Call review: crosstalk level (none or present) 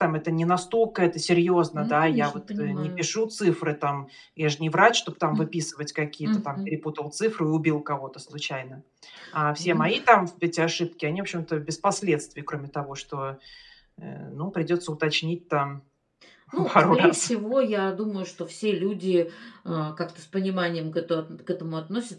present